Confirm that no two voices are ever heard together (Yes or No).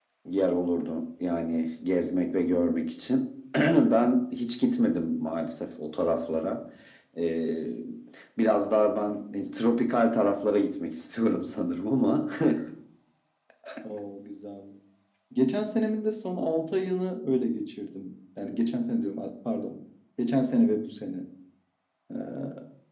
Yes